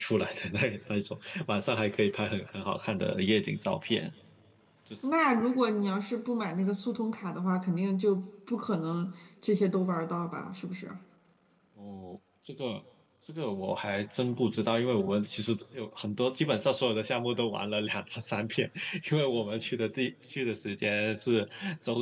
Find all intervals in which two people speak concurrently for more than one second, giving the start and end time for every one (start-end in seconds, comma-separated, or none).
none